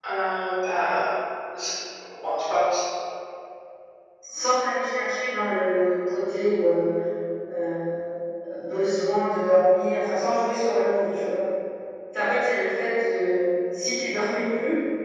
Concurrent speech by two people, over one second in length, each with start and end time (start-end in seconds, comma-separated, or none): none